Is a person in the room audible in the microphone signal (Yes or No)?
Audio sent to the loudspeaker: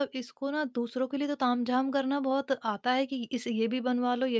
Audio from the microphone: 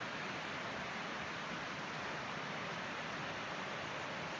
No